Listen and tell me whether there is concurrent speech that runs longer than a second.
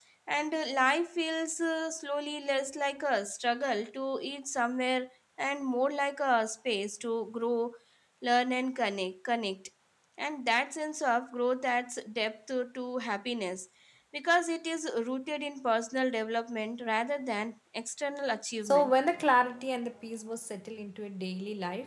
No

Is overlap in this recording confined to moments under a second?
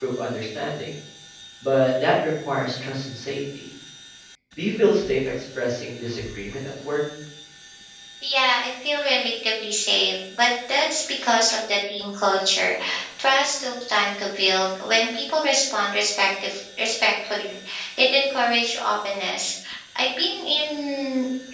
Yes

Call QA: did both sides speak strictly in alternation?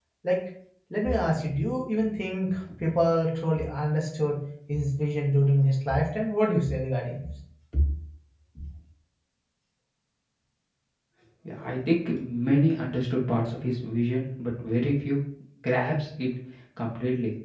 Yes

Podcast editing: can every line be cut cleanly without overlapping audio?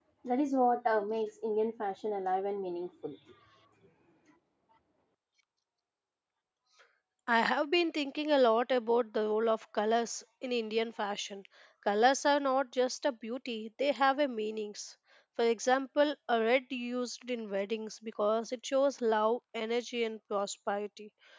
Yes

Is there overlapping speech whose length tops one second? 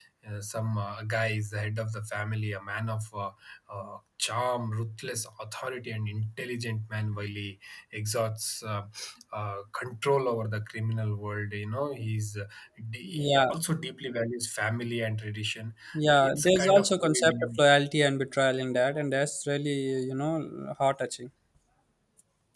Yes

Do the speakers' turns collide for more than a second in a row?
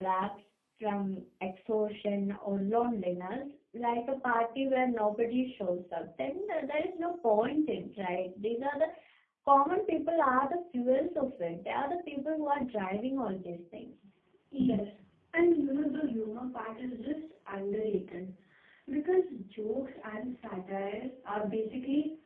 No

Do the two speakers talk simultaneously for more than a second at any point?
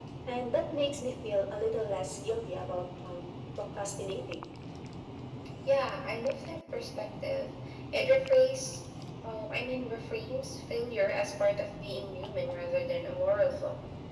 No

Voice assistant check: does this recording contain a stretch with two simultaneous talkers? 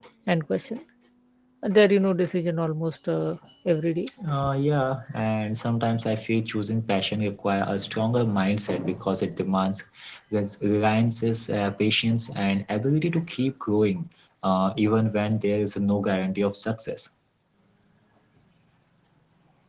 No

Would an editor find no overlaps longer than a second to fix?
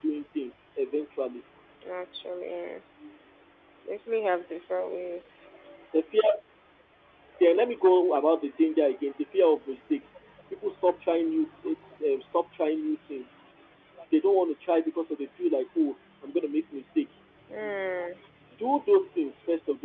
Yes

